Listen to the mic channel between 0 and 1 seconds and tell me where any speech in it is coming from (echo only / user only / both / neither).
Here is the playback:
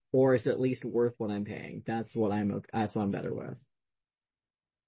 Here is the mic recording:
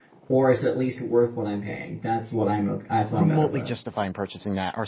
echo only